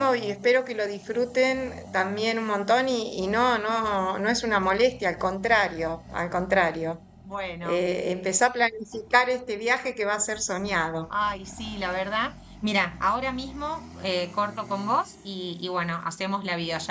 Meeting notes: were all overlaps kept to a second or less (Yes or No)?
Yes